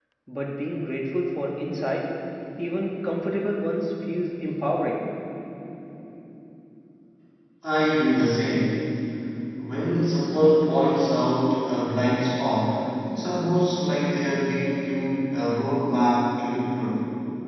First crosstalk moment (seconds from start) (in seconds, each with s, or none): none